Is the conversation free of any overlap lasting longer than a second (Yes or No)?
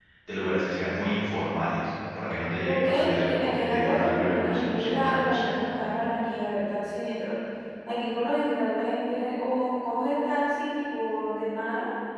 No